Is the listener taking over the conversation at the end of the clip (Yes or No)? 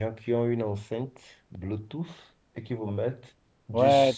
Yes